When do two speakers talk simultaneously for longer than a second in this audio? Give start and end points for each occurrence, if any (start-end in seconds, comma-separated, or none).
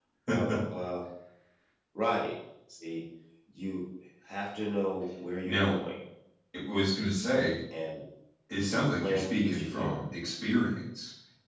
8.7-10.0